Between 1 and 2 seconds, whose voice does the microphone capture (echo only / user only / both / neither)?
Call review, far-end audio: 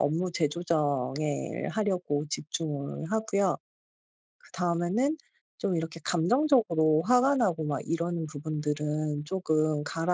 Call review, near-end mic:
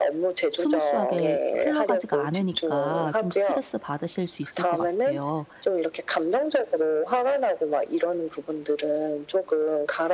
both